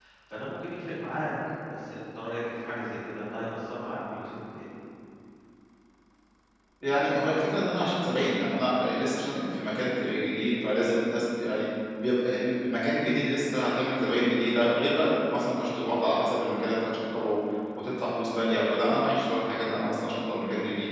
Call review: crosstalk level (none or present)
none